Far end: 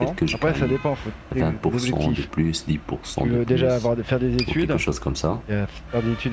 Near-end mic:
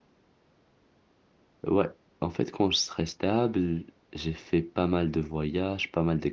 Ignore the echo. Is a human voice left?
Yes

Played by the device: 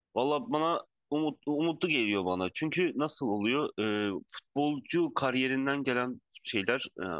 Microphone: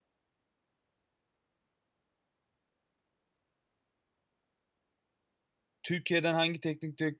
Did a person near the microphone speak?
Yes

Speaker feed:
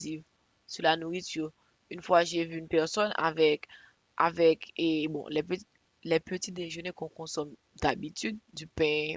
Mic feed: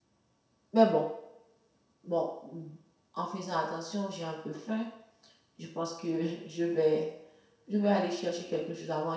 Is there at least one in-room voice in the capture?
Yes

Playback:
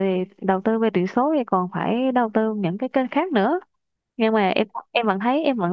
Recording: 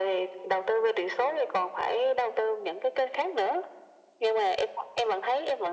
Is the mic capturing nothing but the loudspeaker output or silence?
Yes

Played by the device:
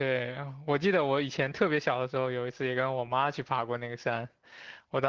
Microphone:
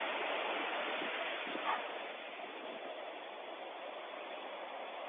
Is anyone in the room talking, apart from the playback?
No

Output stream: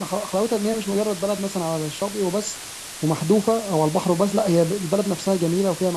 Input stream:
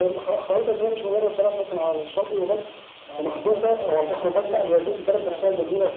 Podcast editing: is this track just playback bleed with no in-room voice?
No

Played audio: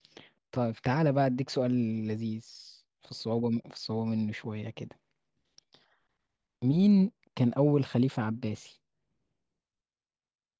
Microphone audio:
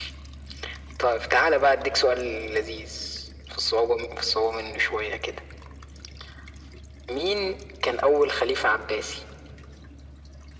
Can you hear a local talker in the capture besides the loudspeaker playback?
No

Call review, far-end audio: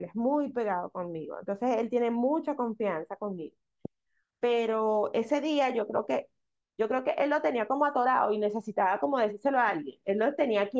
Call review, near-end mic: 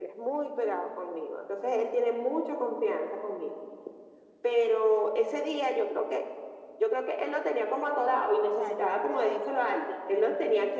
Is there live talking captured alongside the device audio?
Yes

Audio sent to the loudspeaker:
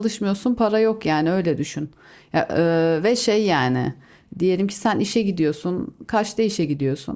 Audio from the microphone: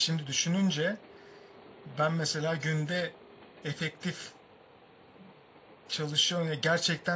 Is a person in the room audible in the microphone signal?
Yes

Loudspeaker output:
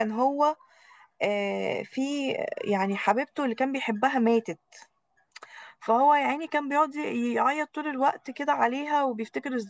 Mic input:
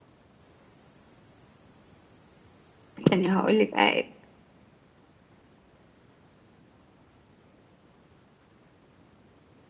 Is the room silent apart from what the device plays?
No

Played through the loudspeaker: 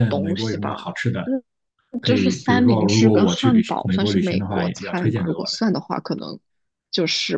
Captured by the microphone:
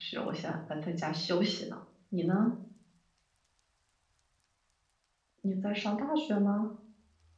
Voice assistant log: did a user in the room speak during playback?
Yes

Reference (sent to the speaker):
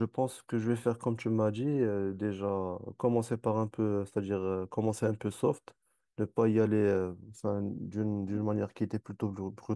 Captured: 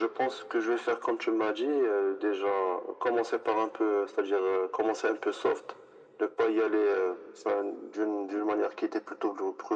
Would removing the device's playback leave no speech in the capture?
Yes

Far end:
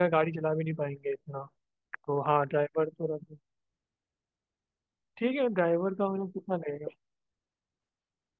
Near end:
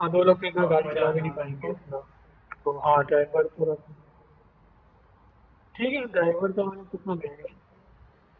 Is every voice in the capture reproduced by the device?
No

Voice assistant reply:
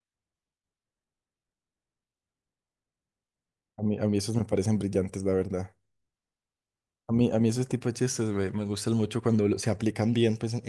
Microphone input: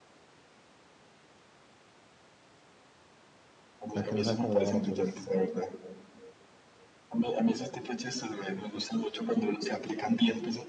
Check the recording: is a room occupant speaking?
Yes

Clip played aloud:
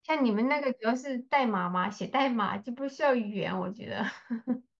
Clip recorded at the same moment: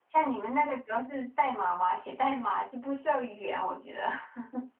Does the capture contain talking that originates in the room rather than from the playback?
No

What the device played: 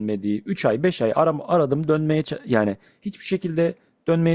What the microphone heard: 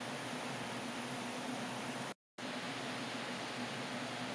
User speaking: No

